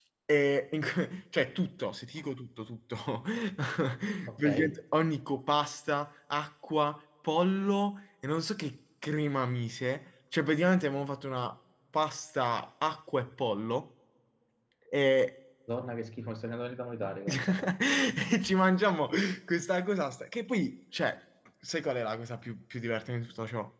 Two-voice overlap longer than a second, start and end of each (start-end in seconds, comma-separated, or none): none